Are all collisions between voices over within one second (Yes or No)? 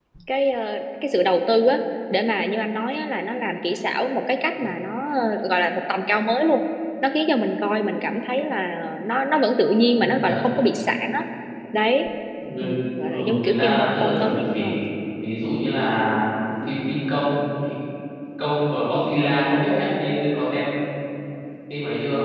No